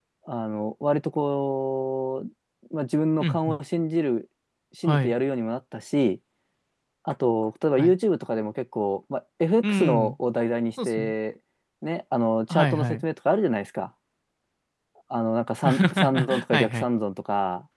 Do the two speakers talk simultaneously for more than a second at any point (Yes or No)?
Yes